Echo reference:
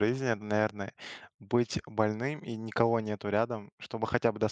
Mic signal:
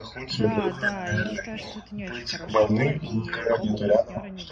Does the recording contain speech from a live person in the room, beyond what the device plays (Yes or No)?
Yes